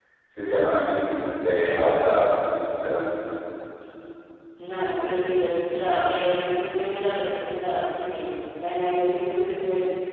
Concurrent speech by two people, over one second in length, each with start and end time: none

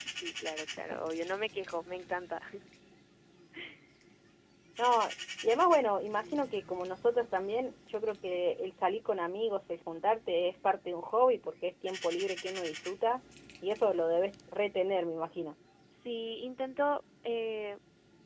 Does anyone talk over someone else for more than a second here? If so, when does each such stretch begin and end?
none

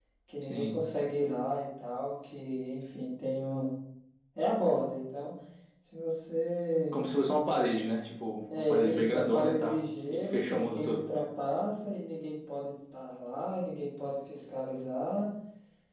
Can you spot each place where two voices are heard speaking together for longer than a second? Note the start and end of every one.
8.6-11.0

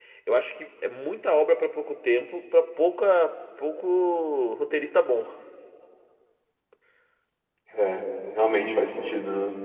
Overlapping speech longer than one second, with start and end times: none

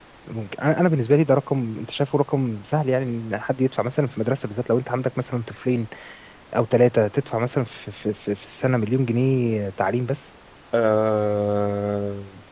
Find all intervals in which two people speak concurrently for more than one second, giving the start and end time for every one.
none

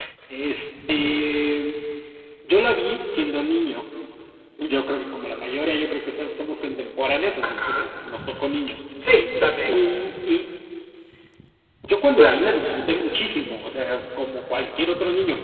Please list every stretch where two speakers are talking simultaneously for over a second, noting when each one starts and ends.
none

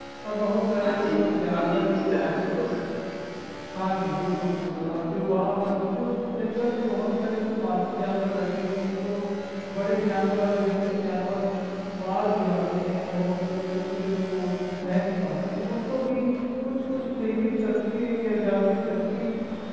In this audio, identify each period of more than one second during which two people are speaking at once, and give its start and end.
0.8-2.6

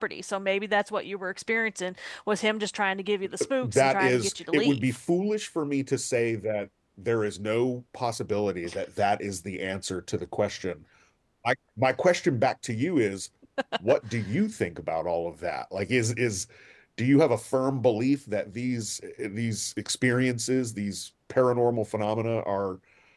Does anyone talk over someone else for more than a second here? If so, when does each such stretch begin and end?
3.6-5.0

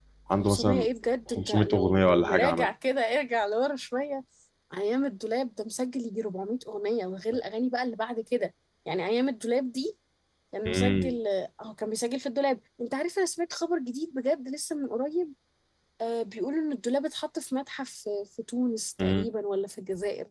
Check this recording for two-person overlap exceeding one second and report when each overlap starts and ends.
1.3-2.7

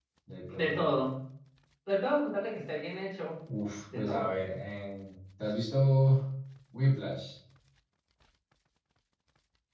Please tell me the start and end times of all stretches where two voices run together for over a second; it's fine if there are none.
none

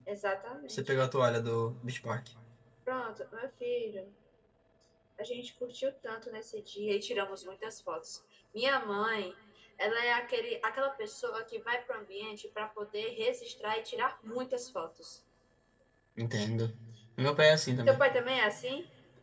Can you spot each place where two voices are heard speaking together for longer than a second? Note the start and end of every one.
none

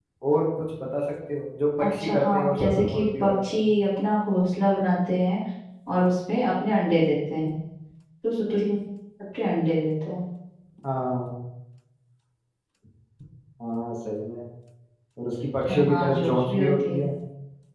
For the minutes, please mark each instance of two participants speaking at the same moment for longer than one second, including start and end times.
1.8-3.7, 15.7-17.0

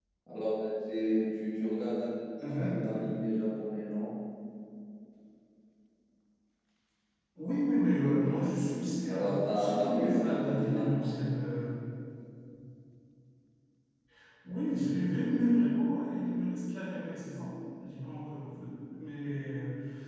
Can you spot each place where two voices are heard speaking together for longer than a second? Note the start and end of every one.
9.1-11.1

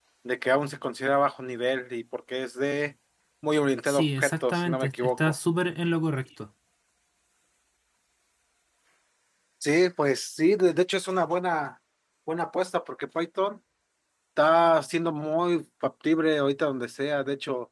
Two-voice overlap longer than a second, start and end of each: 3.8-5.3

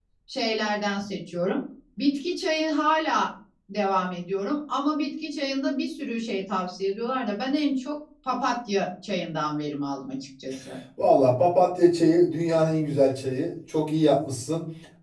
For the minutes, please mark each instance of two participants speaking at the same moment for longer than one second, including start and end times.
none

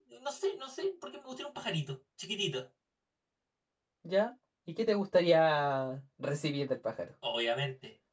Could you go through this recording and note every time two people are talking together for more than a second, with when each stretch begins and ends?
none

